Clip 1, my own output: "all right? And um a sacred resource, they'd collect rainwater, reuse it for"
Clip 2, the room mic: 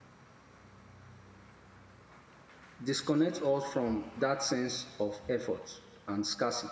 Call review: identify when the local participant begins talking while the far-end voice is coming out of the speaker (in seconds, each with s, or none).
2.8 s